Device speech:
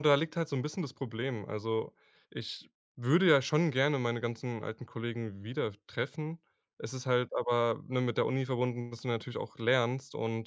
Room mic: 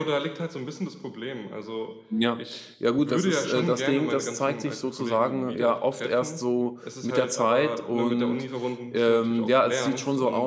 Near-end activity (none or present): present